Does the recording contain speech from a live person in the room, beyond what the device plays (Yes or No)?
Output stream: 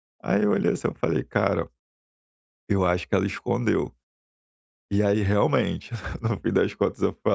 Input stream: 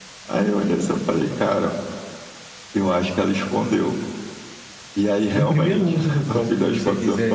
Yes